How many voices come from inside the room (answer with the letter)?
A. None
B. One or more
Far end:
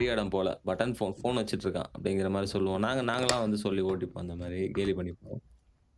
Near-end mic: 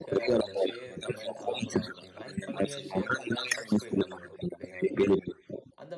B